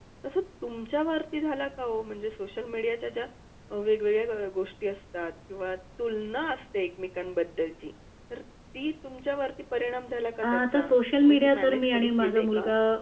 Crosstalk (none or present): present